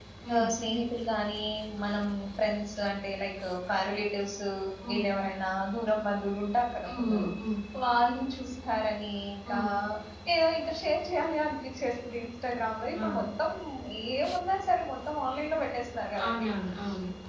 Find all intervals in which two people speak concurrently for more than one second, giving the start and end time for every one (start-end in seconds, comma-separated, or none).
none